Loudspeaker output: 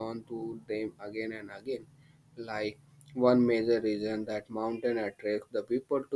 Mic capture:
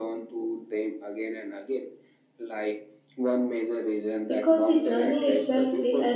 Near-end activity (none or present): present